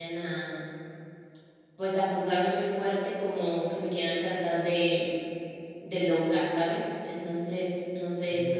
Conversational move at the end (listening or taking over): taking over